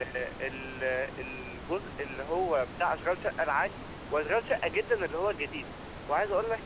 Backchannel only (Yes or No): Yes